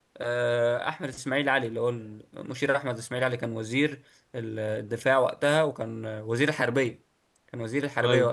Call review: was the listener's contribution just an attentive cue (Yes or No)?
Yes